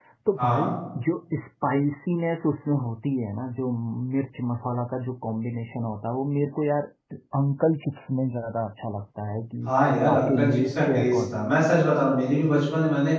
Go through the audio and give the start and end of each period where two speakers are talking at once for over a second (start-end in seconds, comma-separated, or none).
10.1-11.4